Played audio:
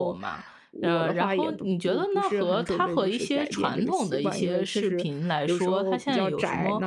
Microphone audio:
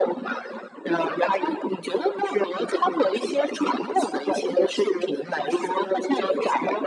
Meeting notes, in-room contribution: none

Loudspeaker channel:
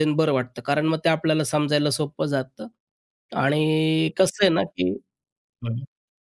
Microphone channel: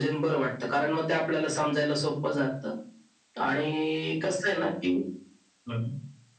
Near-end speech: none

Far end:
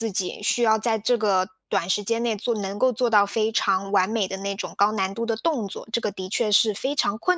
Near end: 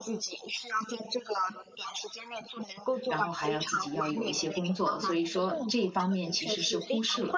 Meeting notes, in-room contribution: present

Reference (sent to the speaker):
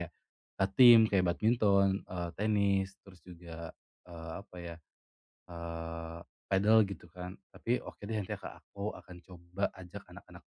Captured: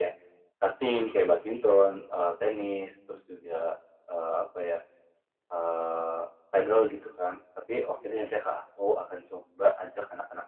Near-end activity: none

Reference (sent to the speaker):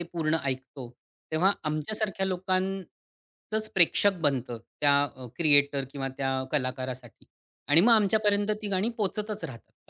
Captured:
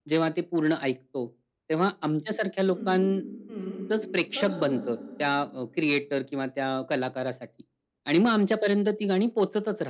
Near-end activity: present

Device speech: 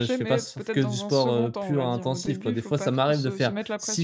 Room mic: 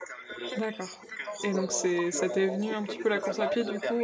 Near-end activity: present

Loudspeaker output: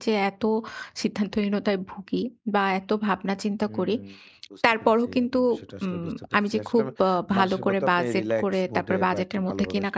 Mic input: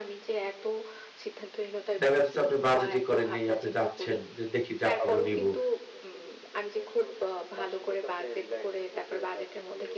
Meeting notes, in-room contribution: present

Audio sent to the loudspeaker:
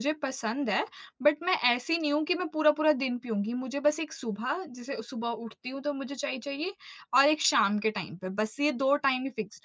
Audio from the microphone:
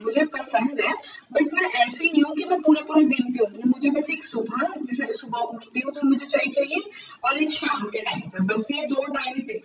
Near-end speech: none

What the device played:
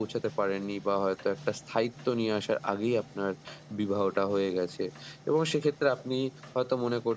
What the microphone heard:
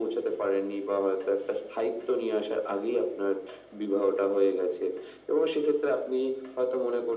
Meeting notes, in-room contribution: none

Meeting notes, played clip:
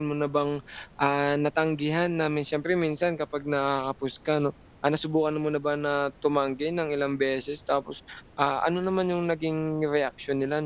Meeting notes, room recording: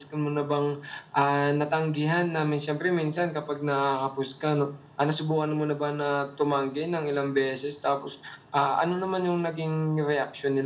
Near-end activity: none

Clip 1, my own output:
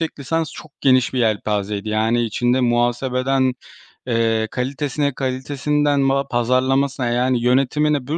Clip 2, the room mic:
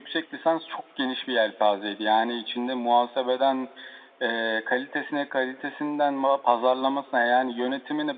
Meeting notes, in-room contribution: none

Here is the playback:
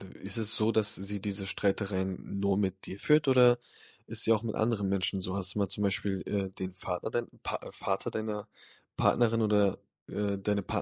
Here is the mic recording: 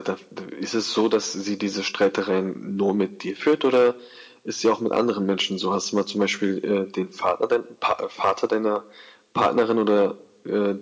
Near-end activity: none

